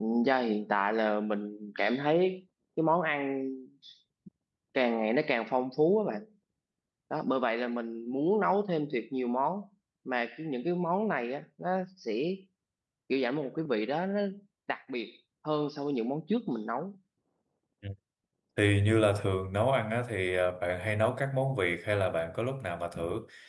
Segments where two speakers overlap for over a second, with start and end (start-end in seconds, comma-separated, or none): none